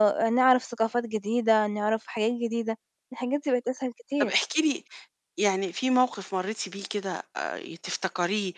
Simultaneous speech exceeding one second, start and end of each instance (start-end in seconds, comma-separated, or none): none